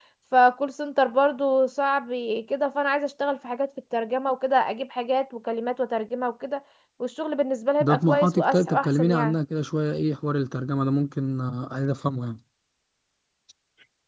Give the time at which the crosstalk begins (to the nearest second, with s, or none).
8 s